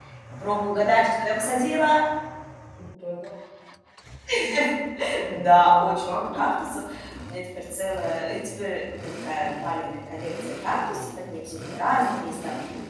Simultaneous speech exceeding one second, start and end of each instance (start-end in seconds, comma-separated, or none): 5.3-6.5